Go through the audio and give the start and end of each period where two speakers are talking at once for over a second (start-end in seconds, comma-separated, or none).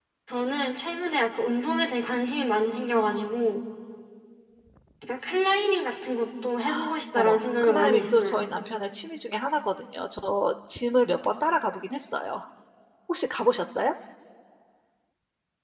7.2-8.5